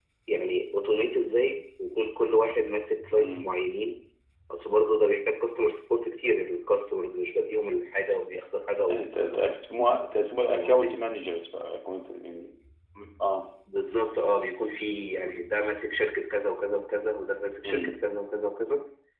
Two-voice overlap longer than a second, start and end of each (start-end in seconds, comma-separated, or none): none